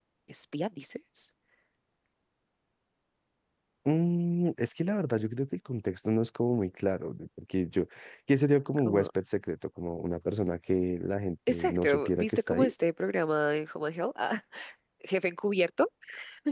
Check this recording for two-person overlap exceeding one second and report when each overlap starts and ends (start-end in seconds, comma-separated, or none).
11.5-12.7